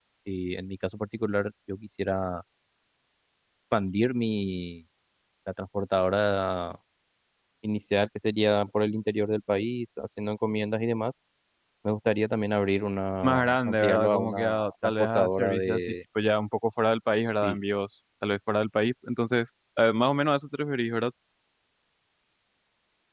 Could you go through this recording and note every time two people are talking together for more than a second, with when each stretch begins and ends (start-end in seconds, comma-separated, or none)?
13.2-15.8